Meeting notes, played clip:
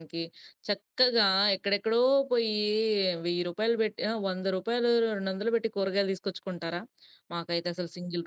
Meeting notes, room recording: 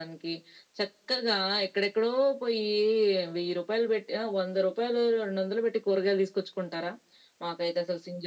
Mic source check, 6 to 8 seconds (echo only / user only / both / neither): echo only